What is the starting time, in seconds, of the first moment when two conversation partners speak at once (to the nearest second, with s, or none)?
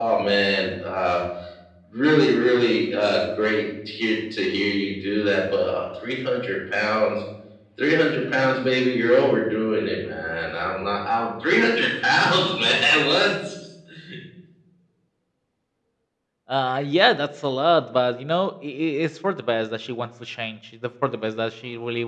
none